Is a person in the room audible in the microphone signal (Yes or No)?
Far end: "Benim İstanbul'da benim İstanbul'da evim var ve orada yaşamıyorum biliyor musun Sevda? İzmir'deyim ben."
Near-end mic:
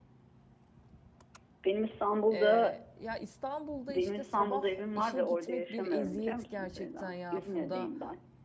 Yes